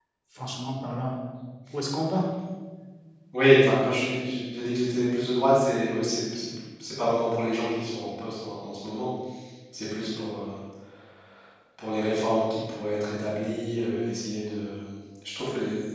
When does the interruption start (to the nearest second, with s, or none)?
none